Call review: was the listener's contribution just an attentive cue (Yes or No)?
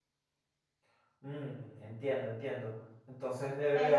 No